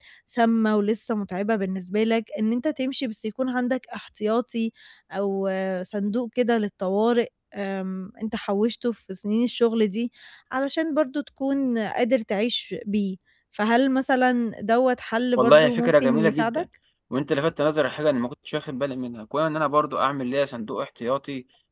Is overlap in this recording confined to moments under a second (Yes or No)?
No